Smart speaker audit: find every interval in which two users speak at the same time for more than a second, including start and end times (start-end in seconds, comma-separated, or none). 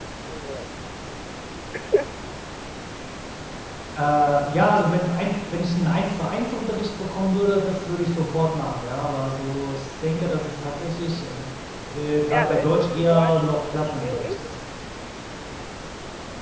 12.3-14.4